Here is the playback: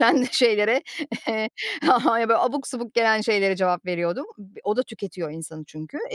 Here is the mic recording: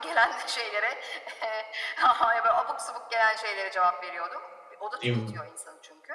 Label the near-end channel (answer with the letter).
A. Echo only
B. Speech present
B